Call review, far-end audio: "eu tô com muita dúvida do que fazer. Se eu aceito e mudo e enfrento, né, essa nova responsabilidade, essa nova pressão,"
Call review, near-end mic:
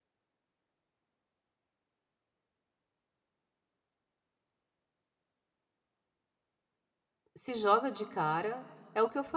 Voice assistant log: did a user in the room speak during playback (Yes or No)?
Yes